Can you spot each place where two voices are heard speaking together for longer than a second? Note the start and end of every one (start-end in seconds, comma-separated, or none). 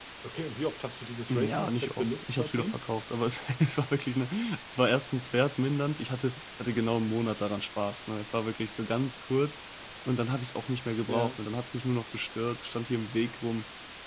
1.3-2.8